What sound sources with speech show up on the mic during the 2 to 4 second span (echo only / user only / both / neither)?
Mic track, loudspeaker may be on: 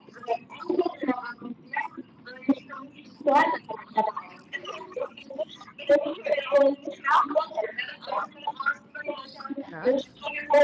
echo only